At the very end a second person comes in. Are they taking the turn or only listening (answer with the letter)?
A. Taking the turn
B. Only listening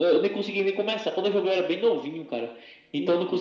B